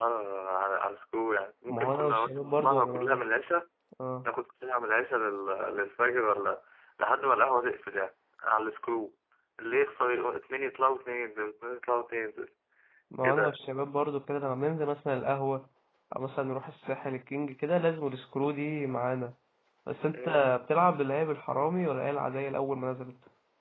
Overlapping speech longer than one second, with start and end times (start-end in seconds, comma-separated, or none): 1.7-3.3